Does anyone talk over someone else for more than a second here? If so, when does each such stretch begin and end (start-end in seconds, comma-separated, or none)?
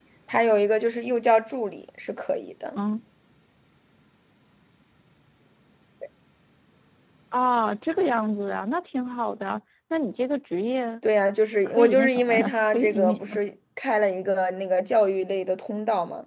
11.7-13.4